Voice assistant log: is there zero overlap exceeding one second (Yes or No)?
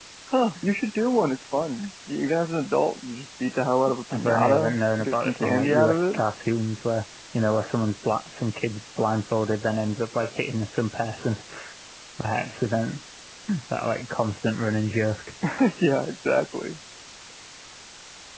No